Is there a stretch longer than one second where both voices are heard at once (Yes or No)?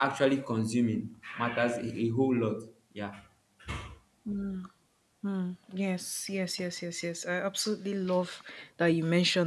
No